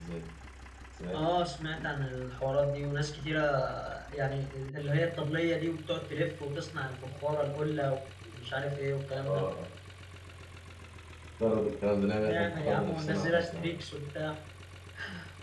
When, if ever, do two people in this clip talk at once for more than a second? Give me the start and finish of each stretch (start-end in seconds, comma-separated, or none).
12.2-13.7